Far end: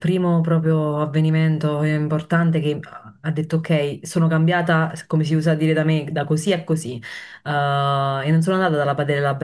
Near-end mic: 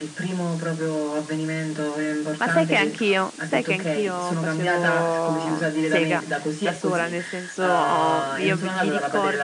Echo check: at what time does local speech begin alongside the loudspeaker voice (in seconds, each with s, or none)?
2.4 s